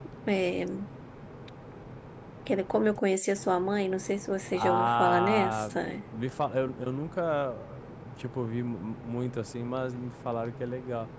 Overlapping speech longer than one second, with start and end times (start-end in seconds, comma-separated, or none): 4.5-5.7